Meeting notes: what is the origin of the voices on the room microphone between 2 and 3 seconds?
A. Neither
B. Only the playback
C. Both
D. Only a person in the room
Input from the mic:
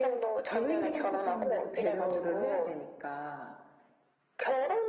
C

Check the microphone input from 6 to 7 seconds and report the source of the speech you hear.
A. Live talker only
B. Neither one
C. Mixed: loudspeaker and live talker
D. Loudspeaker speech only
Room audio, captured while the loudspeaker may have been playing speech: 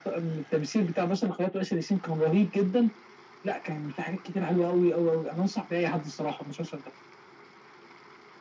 D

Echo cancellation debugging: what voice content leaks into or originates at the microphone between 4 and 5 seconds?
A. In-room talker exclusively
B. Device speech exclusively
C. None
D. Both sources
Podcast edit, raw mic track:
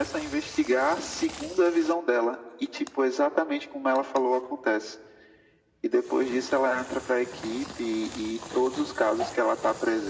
B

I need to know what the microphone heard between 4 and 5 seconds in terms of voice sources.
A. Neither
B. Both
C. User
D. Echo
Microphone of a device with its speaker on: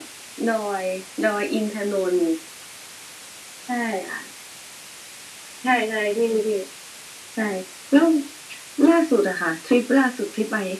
D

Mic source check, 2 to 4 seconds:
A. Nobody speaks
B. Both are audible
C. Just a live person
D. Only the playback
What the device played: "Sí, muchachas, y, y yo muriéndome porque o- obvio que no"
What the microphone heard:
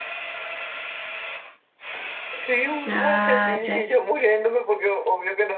B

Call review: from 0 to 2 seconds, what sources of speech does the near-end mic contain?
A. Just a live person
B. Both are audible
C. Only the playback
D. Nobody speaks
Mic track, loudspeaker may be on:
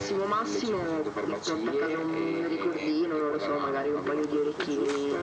C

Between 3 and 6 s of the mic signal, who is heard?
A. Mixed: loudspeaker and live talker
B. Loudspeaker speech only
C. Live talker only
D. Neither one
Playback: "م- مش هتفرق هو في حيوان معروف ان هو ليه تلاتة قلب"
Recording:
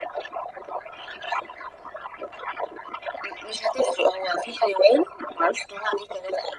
B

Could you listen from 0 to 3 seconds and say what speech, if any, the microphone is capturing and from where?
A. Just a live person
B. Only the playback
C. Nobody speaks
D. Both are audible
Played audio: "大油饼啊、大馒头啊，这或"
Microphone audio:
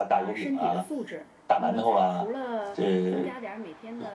D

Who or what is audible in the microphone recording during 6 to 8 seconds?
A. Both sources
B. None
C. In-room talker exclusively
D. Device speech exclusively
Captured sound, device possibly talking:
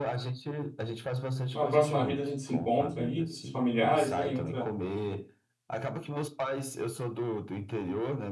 D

